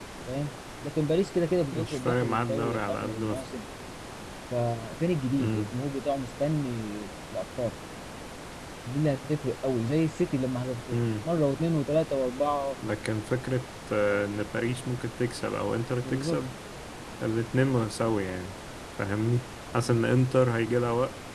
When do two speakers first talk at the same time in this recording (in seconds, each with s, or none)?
1.7 s